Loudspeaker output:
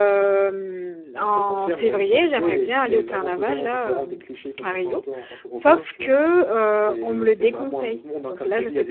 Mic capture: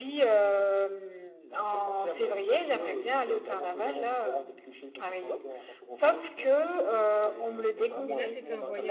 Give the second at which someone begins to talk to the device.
7.9 s

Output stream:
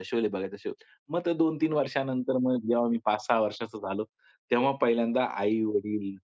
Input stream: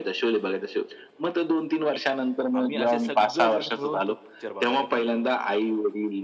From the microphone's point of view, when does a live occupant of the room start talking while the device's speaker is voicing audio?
2.5 s

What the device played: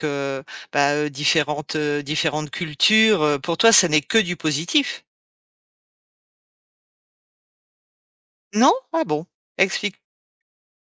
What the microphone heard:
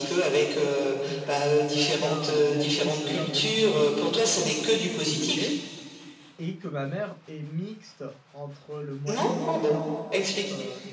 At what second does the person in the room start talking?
1.0 s

